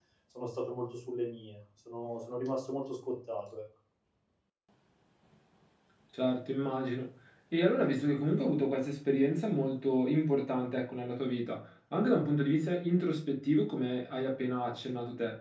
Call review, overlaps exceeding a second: none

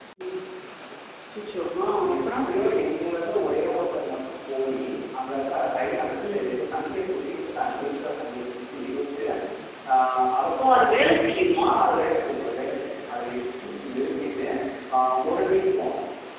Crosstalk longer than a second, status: none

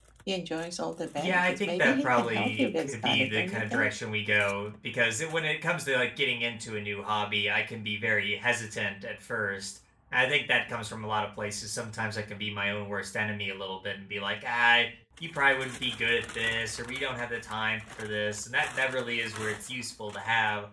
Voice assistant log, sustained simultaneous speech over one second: present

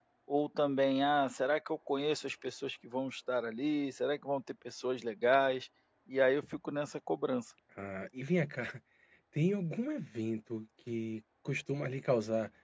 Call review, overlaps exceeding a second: none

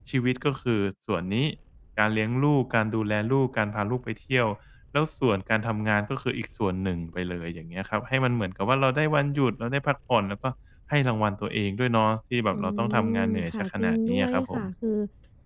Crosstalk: present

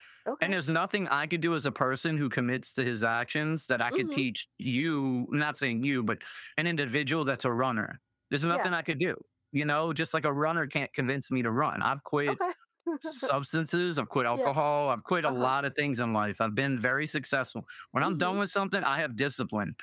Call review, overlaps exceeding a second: none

